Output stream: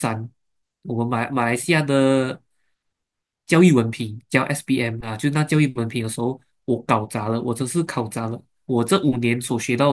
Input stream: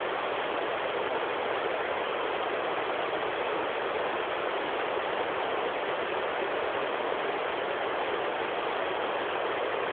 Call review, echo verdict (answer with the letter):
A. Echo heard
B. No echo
B